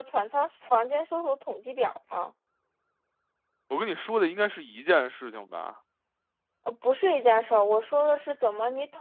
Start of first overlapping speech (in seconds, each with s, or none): none